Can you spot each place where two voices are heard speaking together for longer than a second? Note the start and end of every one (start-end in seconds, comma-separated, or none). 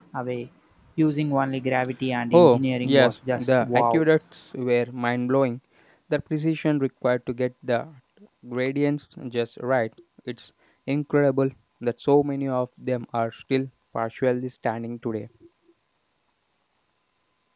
2.3-4.0